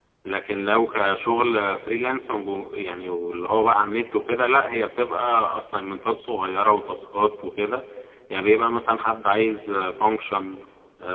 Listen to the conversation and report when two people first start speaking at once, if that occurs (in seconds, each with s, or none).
none